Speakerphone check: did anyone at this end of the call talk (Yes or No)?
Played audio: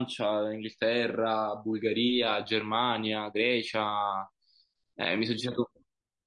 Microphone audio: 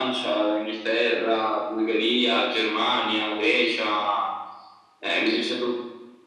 No